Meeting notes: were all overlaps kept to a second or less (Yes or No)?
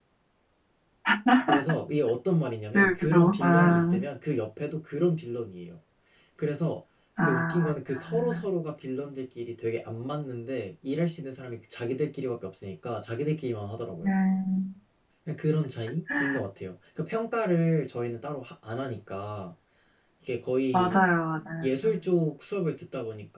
No